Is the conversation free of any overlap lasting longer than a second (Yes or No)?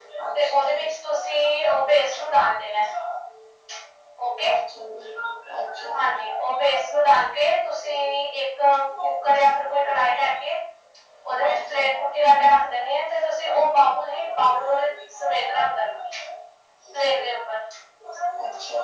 No